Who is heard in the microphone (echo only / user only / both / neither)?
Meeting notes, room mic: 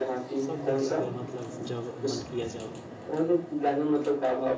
both